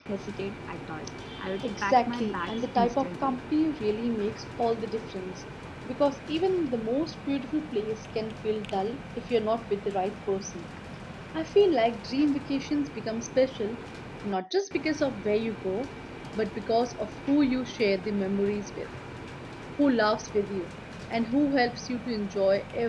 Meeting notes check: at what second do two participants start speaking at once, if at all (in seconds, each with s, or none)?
1.6 s